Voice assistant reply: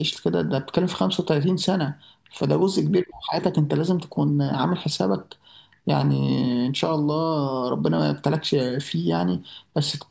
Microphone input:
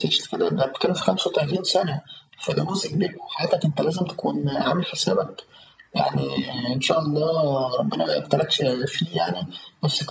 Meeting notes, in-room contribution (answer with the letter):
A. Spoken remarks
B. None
B